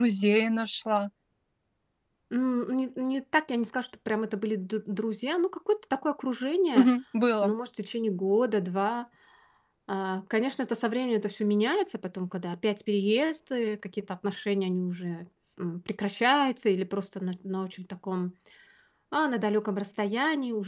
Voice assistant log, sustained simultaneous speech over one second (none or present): none